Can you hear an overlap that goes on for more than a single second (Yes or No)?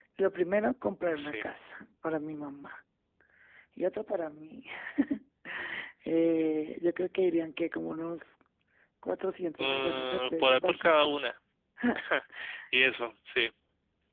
Yes